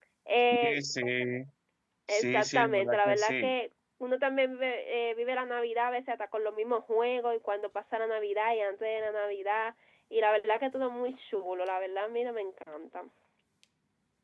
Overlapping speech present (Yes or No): Yes